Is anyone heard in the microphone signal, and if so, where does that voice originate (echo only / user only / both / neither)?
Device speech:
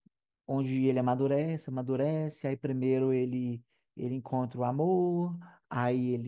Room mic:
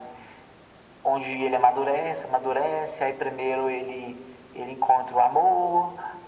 echo only